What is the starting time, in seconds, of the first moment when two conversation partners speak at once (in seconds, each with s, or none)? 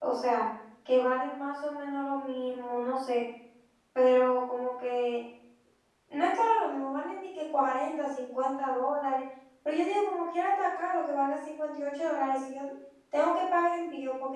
none